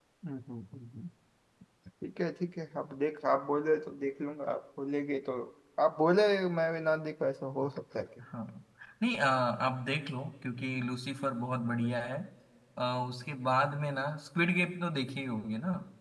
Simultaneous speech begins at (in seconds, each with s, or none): none